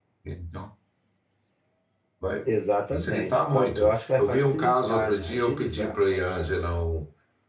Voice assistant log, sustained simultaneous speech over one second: present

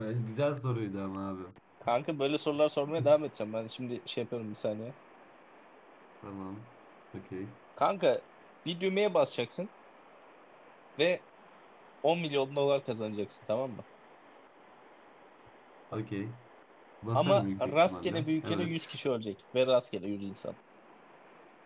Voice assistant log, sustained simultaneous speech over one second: present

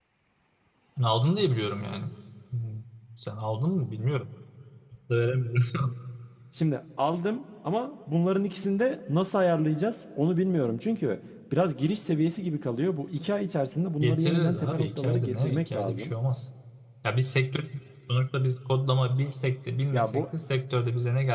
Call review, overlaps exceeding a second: present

